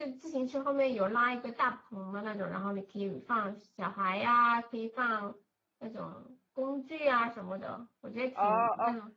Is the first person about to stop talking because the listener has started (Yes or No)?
Yes